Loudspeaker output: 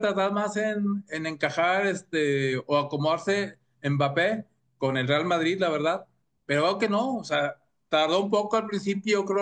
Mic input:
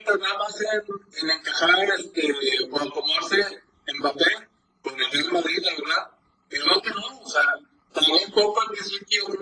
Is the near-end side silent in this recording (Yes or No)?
Yes